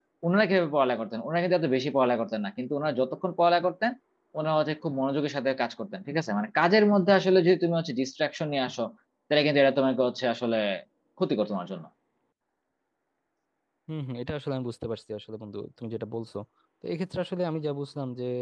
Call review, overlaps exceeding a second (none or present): none